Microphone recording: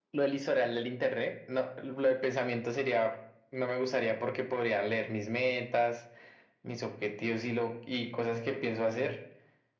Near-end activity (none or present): none